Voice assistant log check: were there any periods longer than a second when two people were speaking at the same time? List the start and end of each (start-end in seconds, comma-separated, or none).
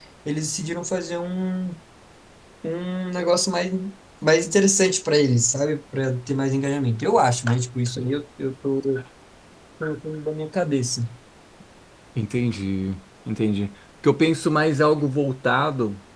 none